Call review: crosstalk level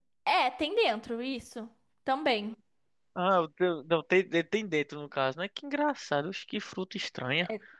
none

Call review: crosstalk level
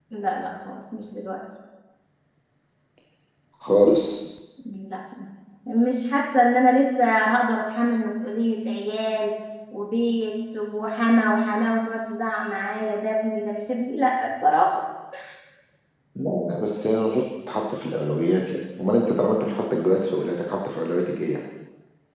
none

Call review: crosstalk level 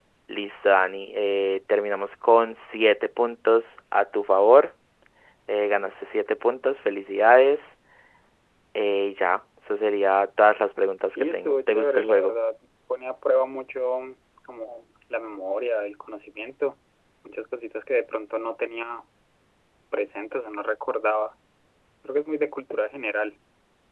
present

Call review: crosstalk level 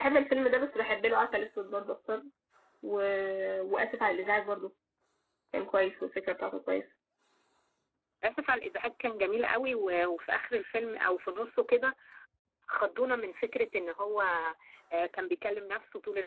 none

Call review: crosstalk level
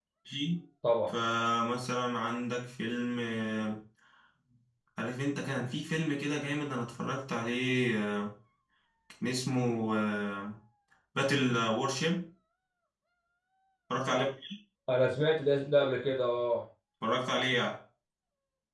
none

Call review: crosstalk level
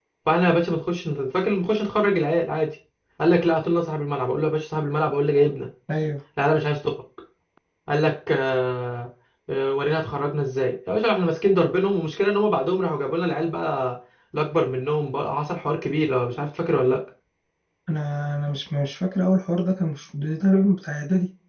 none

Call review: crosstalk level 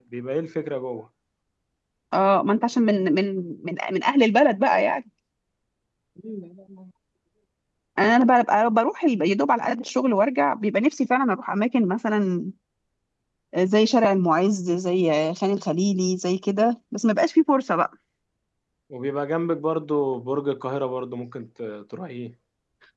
none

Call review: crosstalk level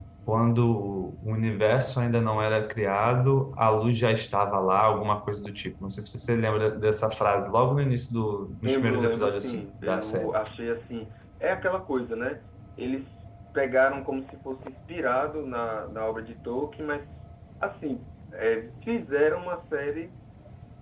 present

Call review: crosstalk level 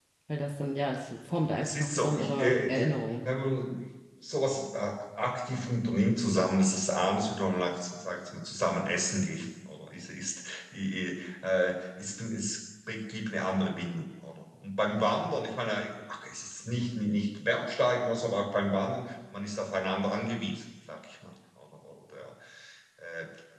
present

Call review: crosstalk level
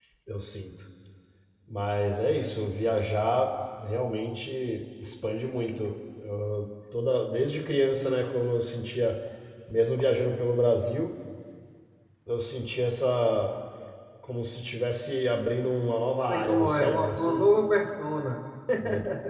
present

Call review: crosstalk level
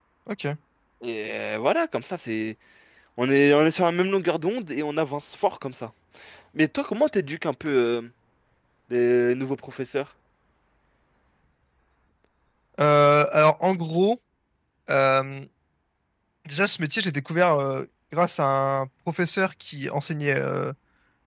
none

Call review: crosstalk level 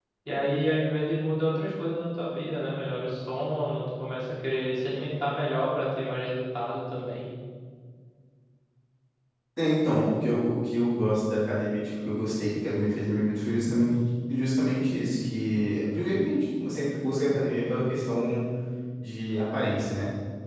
none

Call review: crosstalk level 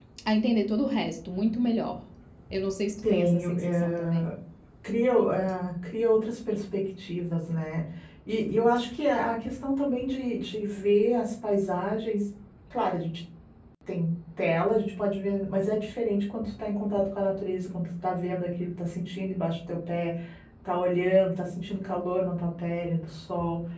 present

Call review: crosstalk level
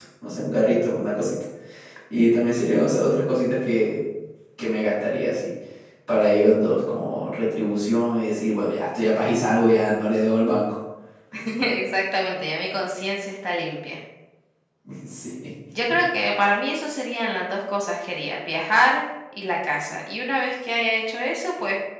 none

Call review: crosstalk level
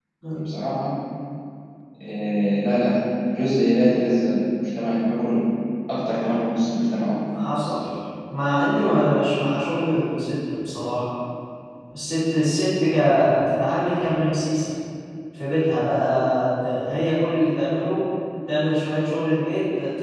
none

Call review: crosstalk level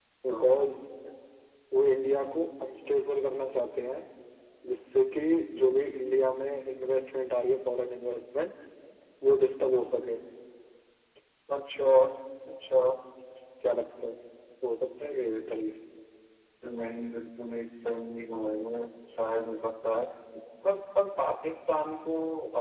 none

